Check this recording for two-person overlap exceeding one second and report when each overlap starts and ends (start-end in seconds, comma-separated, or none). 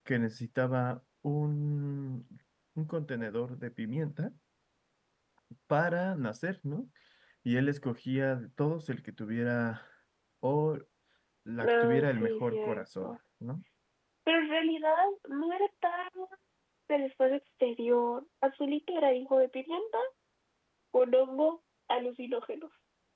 11.7-13.1